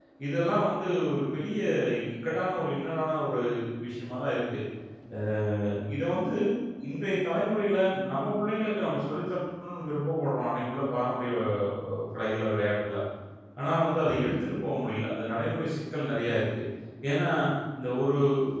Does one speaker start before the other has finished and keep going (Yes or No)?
No